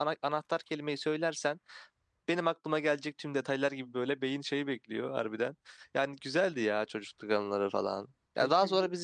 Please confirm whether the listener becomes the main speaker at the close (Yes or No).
No